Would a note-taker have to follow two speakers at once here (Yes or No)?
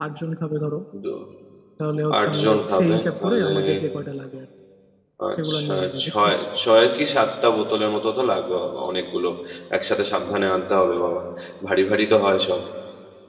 Yes